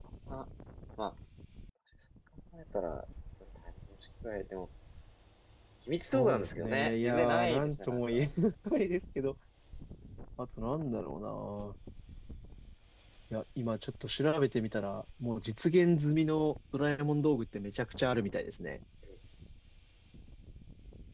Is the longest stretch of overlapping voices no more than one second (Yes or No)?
No